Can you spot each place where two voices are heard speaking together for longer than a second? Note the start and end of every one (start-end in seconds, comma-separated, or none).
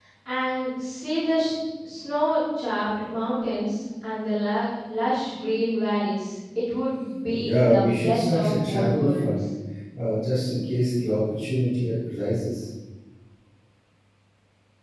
7.3-9.3